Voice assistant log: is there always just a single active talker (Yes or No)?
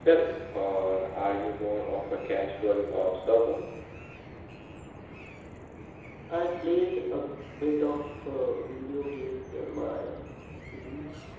Yes